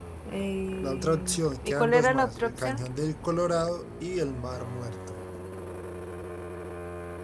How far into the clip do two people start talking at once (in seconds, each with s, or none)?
0.8 s